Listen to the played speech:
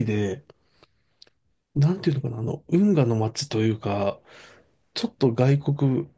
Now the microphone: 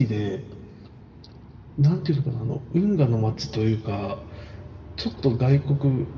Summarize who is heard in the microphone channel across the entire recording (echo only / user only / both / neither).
echo only